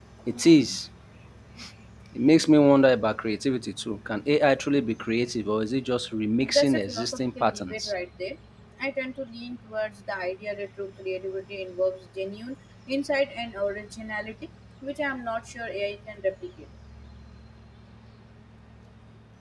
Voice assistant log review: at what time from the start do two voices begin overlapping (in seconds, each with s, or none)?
6.5 s